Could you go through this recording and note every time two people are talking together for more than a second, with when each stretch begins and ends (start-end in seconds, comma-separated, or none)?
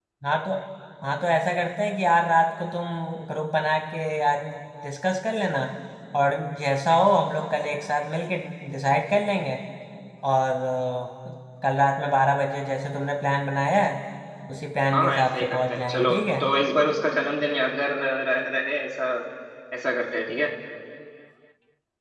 14.9-16.4